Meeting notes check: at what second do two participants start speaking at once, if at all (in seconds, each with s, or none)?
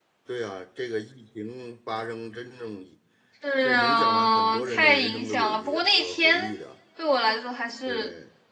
3.6 s